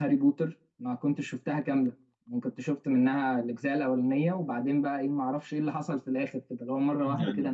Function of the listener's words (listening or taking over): listening